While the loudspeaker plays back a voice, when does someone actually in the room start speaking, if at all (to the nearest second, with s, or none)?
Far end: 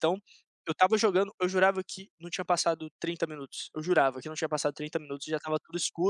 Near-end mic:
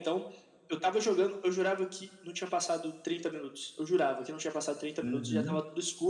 5 s